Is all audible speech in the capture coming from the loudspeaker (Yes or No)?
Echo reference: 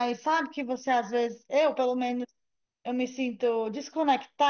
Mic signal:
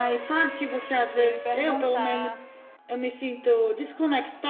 No